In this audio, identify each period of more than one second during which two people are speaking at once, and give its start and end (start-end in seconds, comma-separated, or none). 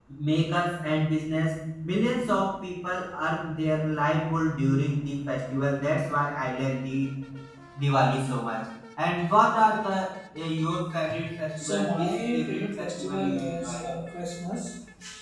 11.6-13.8